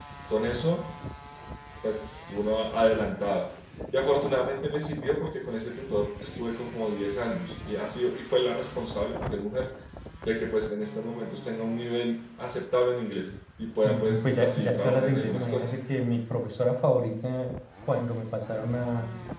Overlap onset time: 13.8 s

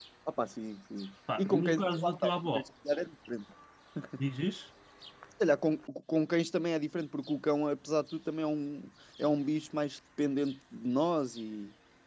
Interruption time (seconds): 1.3 s

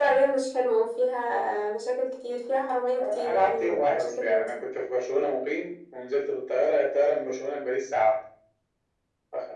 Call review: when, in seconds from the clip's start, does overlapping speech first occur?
3.0 s

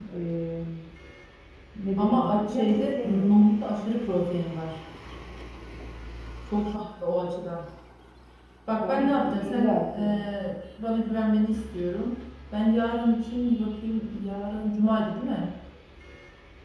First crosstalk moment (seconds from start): 2.0 s

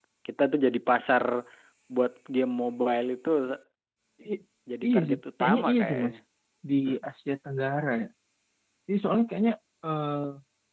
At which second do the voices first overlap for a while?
4.9 s

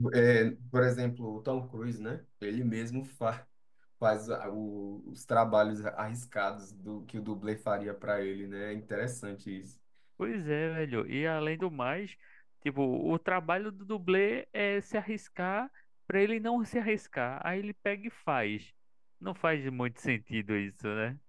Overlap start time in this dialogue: none

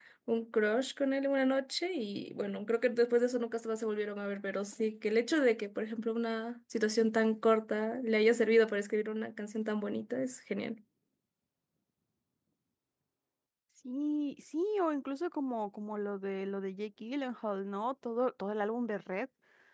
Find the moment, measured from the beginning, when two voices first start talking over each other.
none

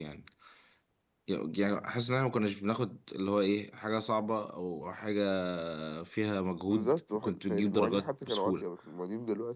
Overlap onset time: 6.7 s

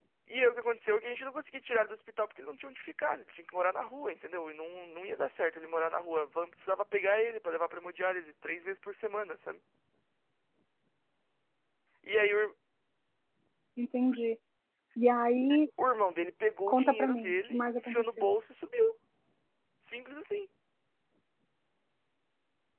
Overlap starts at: 16.7 s

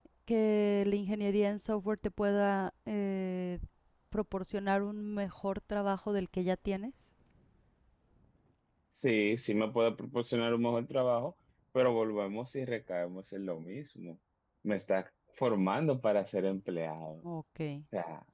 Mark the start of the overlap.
none

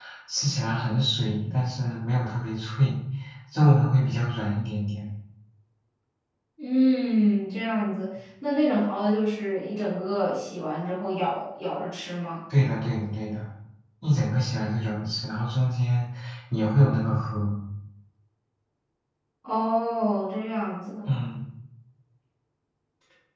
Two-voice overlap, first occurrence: none

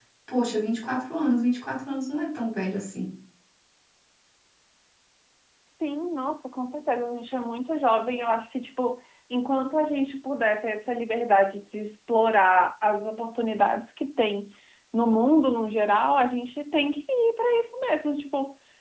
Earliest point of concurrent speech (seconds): none

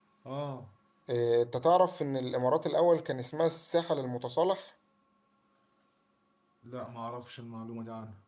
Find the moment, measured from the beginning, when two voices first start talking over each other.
none

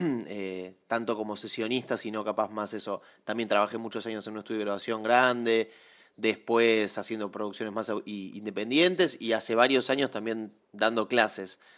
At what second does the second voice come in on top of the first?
none

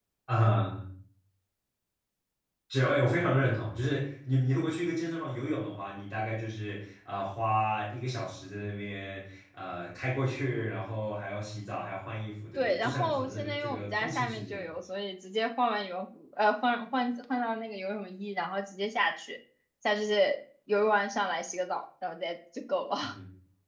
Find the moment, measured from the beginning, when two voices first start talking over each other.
12.6 s

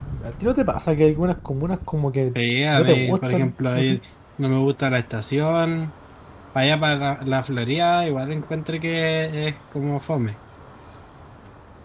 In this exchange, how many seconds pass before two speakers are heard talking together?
2.7 s

